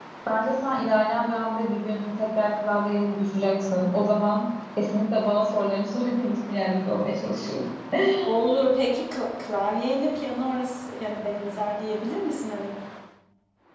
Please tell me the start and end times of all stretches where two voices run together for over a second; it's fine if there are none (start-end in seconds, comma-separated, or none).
none